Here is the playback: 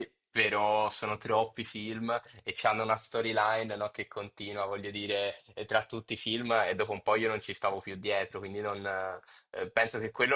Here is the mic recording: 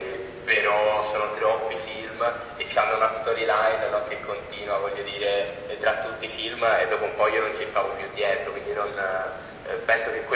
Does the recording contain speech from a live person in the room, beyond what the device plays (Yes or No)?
No